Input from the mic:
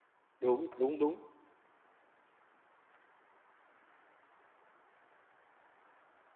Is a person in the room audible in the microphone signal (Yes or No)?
Yes